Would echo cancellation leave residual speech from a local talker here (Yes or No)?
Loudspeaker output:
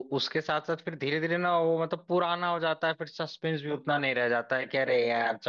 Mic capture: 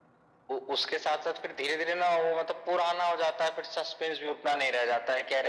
No